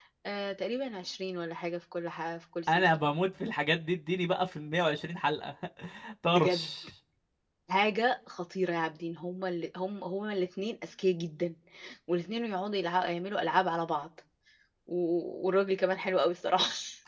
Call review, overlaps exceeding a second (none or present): none